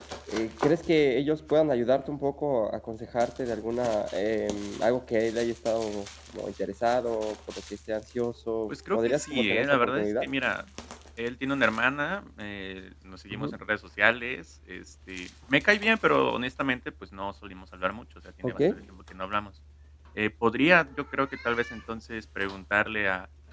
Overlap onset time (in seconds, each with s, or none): 8.7 s